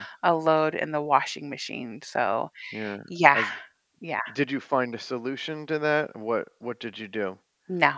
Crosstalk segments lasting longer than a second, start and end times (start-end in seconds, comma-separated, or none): none